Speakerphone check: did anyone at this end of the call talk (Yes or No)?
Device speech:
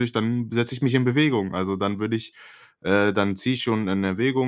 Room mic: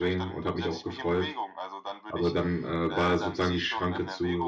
Yes